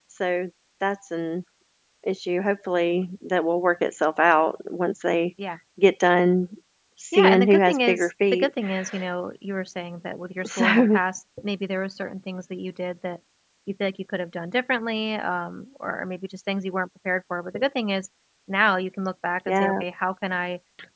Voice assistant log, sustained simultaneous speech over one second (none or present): present